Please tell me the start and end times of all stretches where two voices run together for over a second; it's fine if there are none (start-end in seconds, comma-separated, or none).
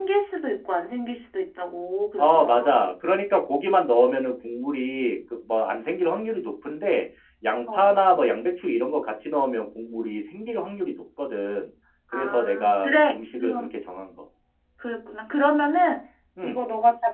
12.1-13.7